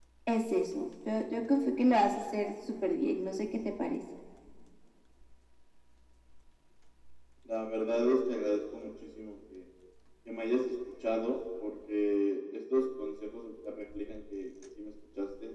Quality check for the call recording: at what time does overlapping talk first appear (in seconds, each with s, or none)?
none